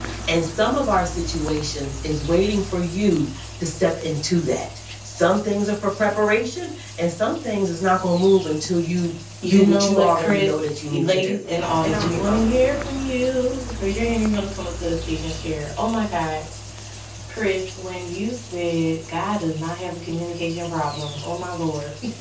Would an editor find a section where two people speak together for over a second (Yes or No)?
Yes